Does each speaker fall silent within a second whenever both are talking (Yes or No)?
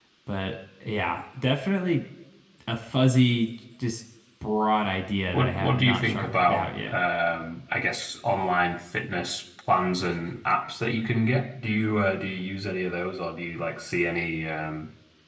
No